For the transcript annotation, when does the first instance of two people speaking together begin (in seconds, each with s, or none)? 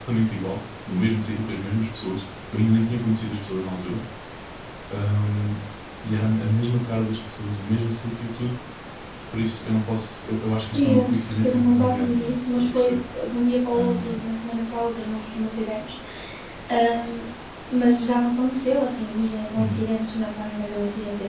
10.7 s